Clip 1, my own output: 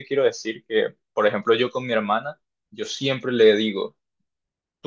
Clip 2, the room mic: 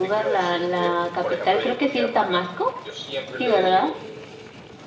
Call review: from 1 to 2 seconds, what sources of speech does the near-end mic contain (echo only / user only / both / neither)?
both